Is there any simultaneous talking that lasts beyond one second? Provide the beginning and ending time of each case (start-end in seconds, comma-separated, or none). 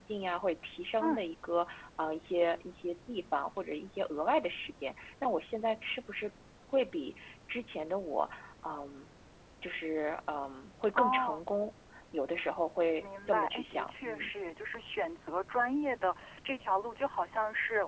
13.0-14.3